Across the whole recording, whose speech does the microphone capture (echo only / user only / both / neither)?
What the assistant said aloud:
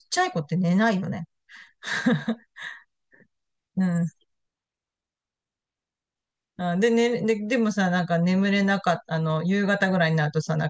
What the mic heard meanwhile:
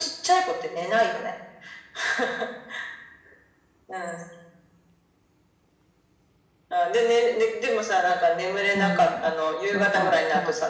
both